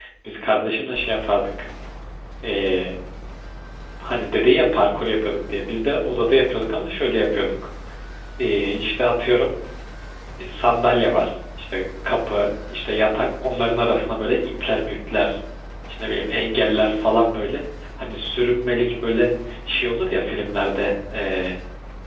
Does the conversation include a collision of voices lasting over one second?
No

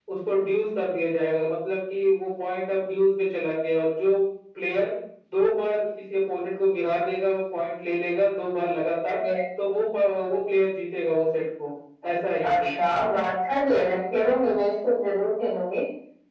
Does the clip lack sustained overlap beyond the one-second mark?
Yes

